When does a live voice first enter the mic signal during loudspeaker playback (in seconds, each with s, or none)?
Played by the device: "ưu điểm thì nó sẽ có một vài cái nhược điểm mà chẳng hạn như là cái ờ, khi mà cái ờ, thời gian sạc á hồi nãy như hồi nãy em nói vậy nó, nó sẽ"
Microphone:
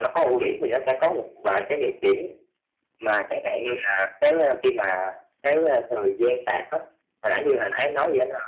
none